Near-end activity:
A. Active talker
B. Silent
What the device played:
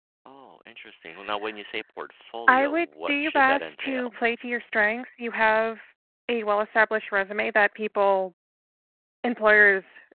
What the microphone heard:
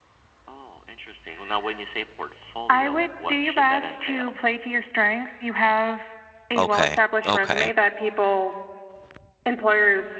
A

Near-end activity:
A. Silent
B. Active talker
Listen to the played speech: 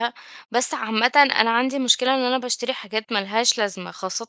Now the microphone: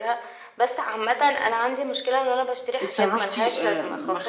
B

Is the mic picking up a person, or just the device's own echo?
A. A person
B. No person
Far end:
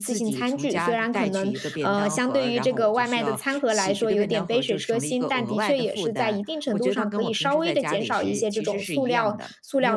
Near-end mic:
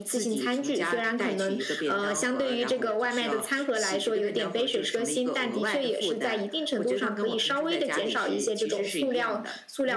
B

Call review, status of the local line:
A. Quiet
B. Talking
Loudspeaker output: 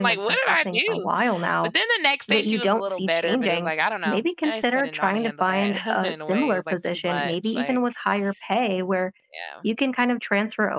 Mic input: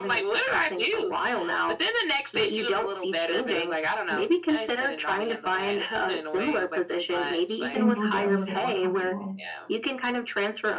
B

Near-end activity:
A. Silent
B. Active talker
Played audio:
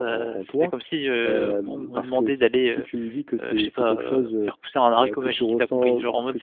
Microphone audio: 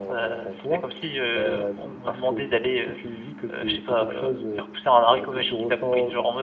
A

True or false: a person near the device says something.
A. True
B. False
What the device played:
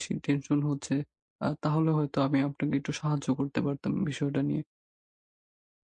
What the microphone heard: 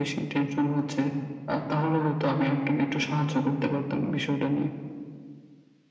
B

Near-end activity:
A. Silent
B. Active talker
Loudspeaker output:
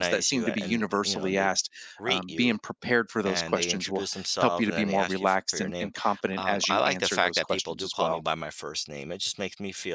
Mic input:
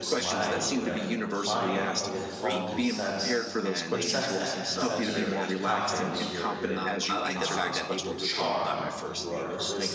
B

